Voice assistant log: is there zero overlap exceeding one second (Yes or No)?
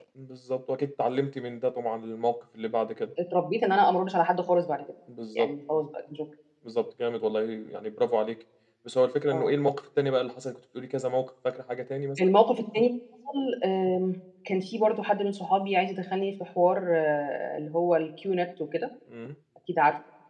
Yes